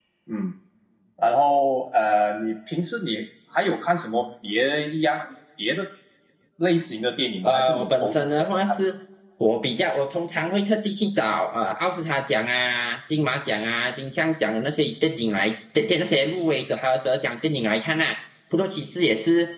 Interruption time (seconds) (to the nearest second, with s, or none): 7 s